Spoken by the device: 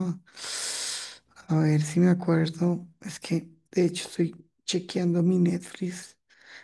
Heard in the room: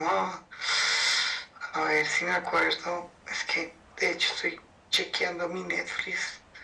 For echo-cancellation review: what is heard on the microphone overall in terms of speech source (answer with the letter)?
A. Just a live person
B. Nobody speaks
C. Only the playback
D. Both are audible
C